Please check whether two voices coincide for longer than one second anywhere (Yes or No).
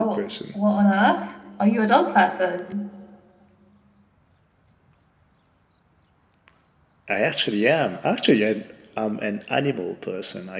No